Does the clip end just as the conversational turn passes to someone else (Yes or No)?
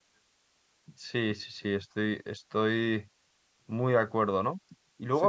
No